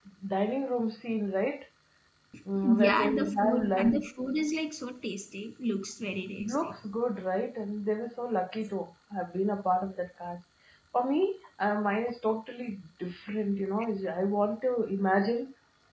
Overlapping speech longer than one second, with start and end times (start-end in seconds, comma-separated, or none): 2.6-4.1